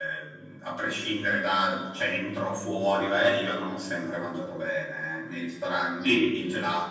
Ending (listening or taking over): listening